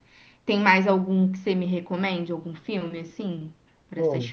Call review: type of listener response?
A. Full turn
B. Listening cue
A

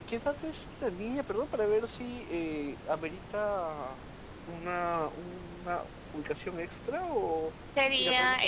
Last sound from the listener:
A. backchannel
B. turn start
B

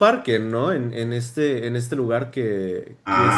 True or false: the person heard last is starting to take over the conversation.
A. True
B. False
A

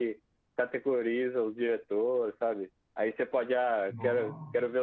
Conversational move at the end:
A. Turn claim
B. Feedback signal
B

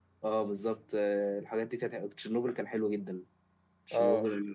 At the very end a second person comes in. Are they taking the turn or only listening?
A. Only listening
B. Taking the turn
A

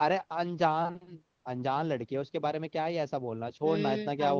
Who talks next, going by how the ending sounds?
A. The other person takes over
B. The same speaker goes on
A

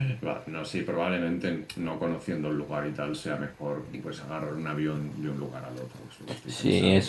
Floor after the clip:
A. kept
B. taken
B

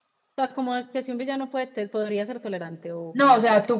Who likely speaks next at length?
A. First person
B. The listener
B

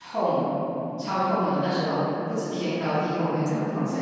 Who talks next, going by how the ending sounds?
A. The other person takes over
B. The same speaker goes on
A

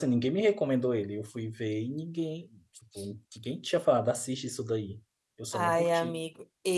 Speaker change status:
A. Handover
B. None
A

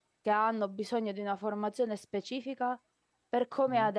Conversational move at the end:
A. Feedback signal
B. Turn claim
A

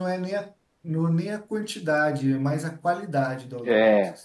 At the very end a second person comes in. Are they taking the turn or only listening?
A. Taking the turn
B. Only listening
A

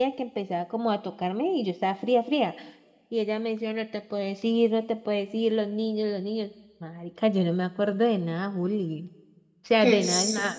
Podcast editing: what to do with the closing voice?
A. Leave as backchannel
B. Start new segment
B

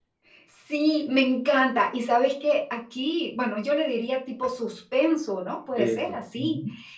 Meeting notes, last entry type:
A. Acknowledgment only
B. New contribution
A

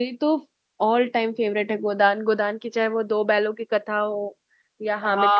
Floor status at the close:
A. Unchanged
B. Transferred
B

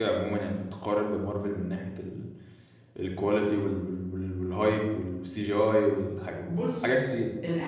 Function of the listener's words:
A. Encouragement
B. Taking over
B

